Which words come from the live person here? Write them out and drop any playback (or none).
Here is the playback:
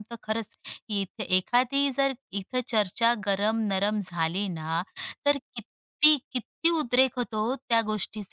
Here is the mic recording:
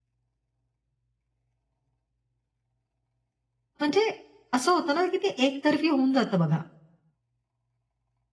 म्हणजे असं होतं ना, की ते एकतर्फी होऊन जातं बघा.